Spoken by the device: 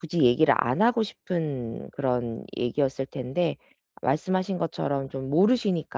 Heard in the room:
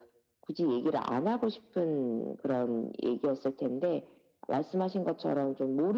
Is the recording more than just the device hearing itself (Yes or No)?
No